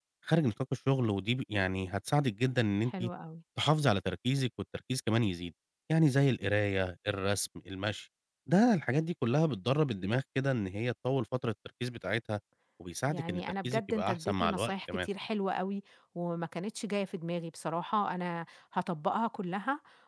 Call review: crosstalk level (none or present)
present